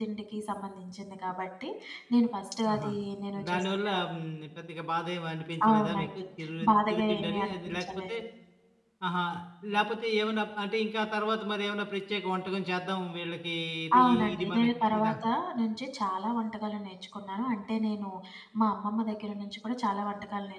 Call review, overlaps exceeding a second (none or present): present